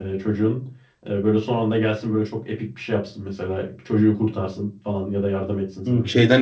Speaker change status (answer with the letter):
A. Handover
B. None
A